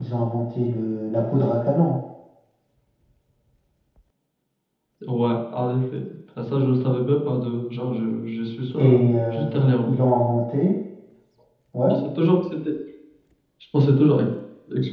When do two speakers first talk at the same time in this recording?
9 s

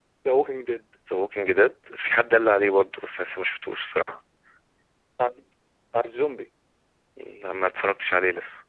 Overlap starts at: none

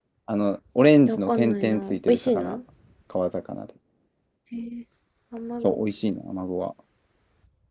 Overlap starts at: 1 s

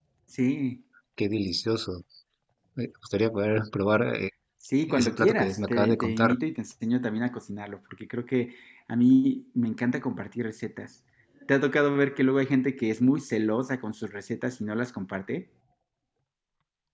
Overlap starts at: 5 s

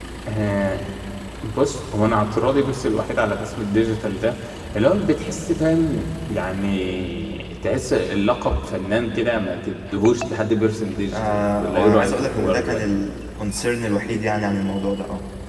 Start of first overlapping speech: 11 s

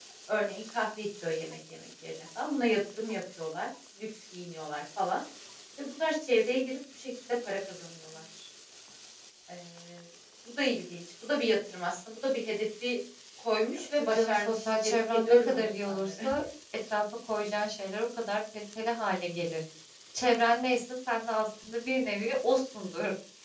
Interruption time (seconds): 14 s

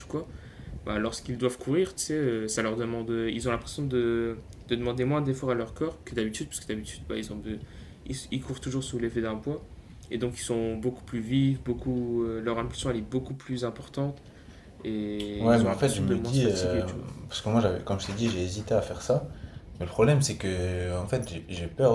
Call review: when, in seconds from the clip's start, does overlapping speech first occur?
15 s

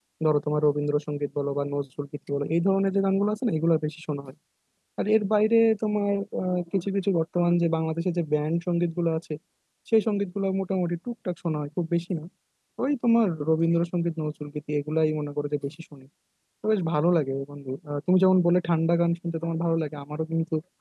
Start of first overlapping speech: none

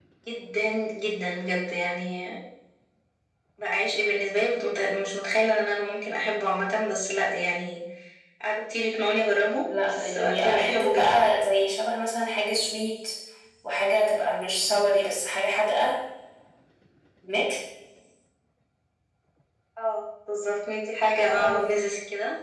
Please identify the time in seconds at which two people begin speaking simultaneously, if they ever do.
10 s

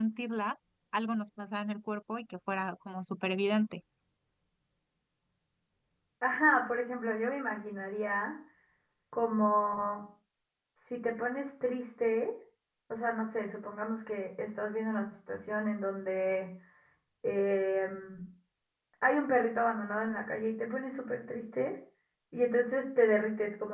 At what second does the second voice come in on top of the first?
none

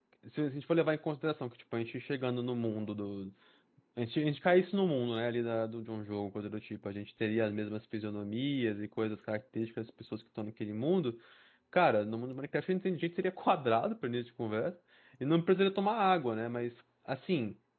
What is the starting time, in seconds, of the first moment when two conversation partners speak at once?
none

